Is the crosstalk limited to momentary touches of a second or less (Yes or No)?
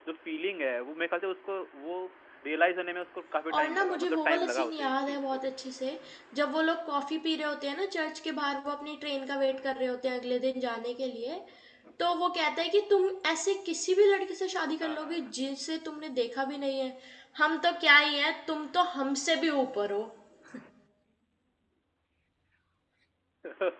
No